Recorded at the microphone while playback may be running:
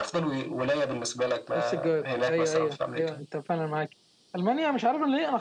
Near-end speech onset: 1.6 s

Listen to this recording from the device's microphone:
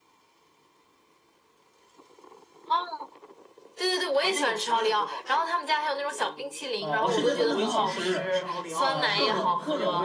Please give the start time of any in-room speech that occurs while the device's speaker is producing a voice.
6.8 s

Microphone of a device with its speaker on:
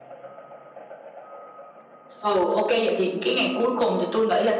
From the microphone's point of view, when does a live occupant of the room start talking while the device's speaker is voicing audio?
none

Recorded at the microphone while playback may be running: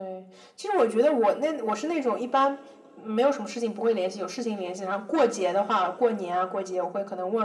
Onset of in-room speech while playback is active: none

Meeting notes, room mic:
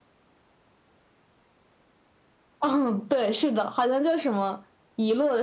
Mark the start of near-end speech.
none

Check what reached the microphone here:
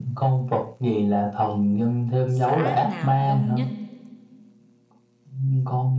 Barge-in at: 2.3 s

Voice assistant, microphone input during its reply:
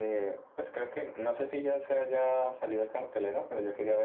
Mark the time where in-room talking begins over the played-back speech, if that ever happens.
none

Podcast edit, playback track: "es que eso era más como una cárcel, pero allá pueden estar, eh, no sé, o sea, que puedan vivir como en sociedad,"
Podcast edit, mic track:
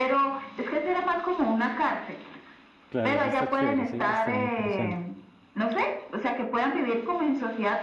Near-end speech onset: 2.9 s

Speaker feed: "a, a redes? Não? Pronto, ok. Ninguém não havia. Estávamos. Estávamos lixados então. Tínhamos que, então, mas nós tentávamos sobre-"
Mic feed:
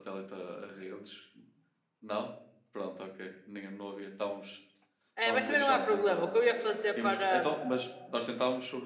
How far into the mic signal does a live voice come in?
5.1 s

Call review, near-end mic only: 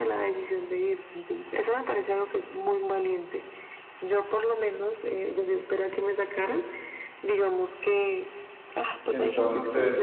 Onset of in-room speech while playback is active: 9.1 s

